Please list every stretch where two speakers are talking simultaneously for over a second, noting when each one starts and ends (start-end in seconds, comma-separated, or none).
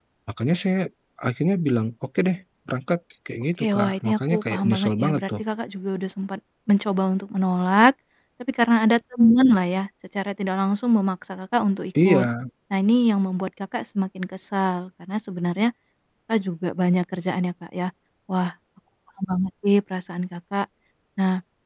3.6-5.4